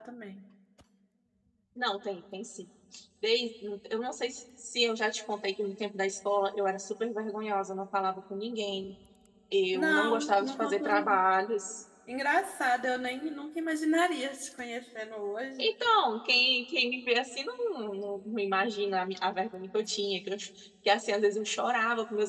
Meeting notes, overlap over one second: present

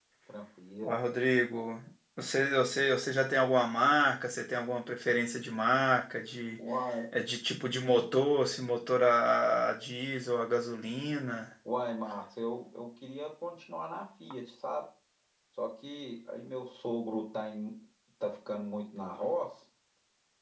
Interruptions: none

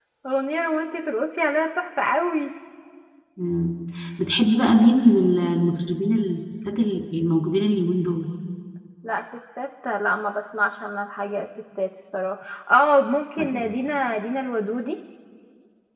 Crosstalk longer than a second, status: none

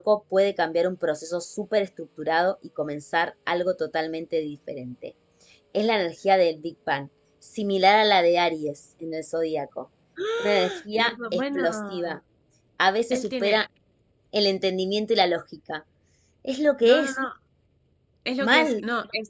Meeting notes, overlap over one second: present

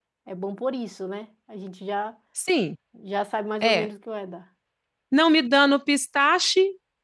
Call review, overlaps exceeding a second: none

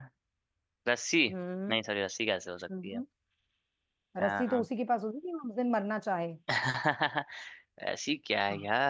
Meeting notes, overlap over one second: none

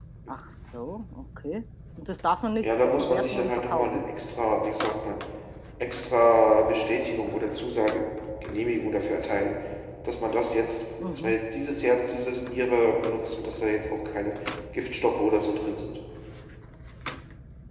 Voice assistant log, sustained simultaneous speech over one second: present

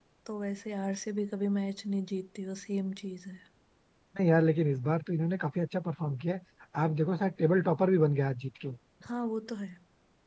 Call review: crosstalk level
none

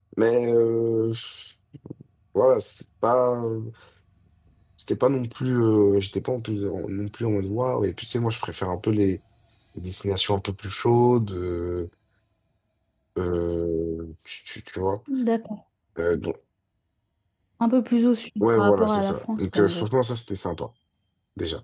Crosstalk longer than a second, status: present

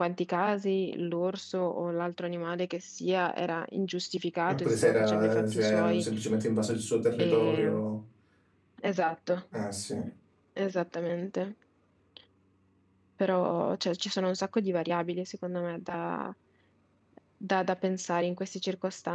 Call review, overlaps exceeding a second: present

